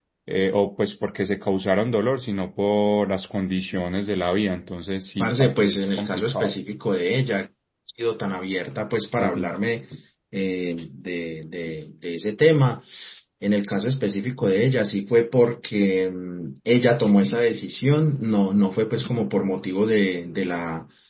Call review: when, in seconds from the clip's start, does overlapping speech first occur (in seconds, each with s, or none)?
5.2 s